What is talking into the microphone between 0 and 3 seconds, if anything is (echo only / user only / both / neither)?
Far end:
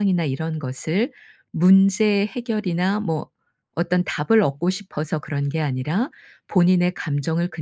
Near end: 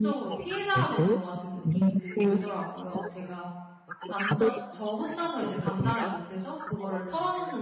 both